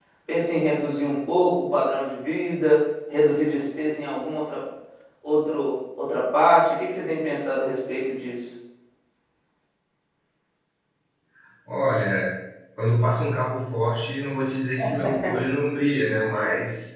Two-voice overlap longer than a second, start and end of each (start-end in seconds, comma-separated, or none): none